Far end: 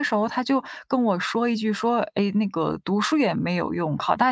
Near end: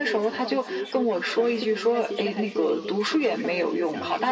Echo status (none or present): present